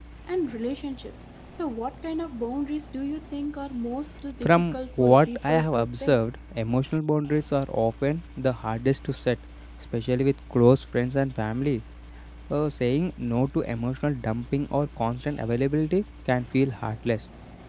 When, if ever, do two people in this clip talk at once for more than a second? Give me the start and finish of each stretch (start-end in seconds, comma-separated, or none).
4.4-6.2